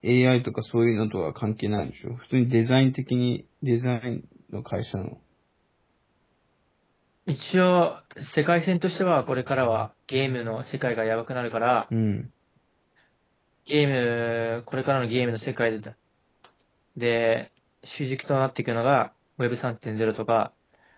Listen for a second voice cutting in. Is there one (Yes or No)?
No